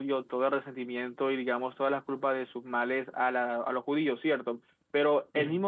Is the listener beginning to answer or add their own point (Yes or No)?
No